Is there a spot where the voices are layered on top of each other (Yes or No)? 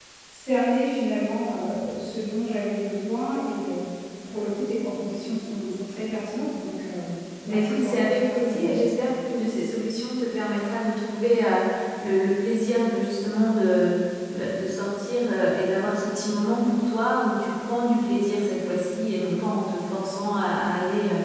Yes